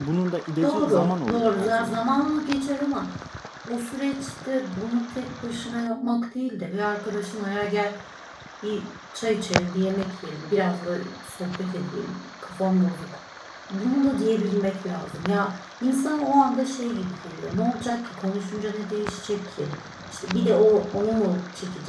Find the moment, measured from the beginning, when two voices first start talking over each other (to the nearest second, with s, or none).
1 s